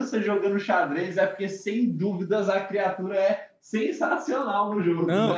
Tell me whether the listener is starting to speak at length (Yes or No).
Yes